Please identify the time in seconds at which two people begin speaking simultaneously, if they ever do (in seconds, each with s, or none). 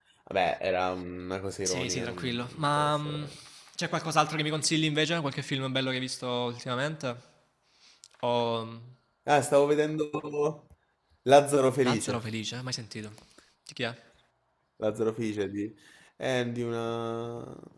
1.6 s